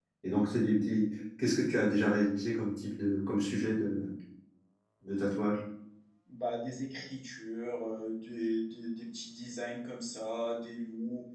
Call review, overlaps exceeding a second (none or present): none